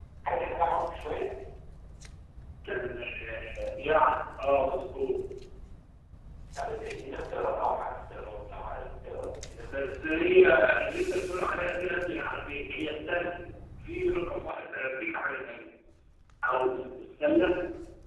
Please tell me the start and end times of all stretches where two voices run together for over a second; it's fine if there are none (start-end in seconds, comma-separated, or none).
none